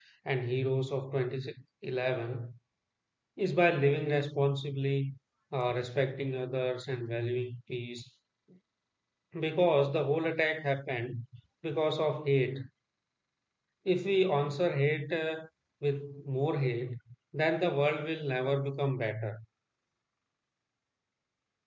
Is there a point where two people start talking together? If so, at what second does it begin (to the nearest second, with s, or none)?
none